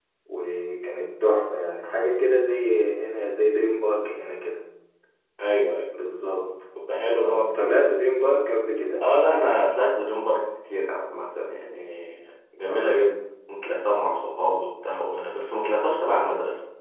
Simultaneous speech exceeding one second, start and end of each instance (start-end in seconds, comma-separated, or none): none